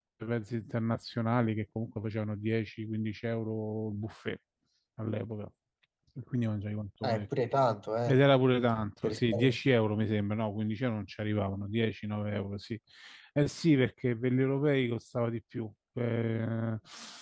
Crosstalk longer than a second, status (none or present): none